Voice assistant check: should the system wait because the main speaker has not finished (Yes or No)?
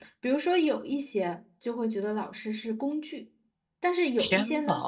Yes